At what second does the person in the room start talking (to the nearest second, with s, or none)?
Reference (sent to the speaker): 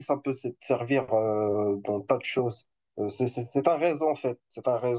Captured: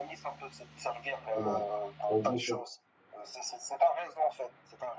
1 s